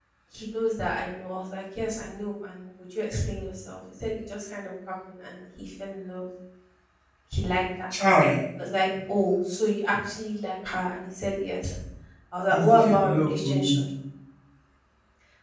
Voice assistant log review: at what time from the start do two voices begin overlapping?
12.5 s

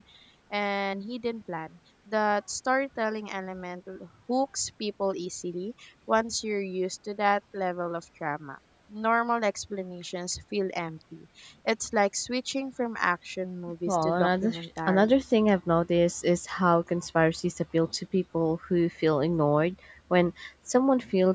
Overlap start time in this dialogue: 13.9 s

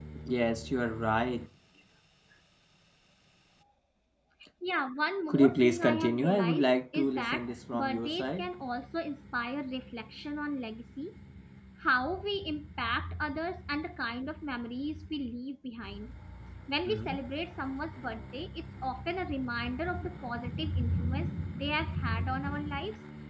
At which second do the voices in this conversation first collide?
5.3 s

